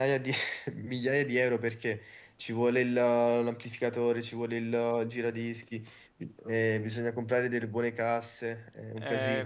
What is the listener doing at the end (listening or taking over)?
taking over